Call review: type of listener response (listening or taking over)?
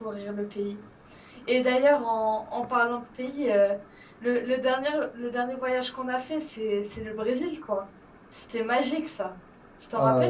taking over